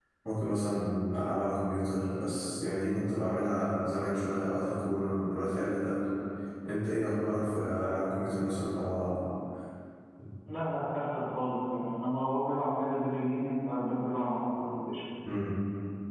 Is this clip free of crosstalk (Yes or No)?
Yes